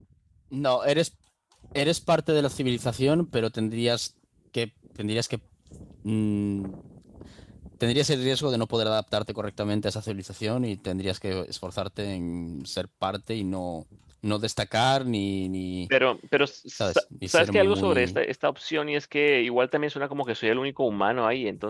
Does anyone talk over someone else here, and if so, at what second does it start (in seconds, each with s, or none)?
16.8 s